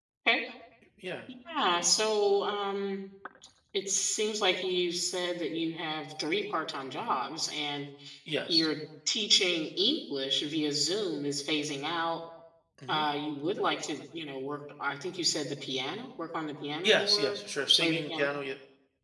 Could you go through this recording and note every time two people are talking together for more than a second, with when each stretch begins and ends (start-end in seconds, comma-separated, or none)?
16.8-18.3